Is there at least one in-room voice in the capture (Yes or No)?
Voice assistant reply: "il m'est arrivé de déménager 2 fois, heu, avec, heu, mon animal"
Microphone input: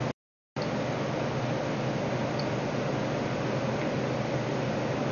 No